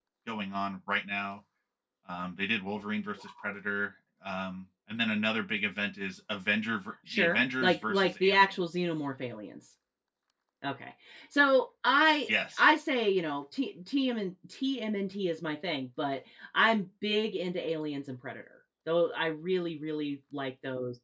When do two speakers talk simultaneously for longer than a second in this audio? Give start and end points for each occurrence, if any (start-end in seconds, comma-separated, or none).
7.1-8.6